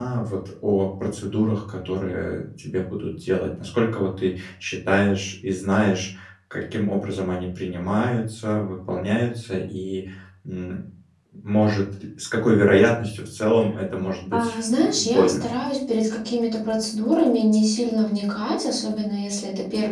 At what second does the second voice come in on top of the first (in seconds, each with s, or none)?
14.3 s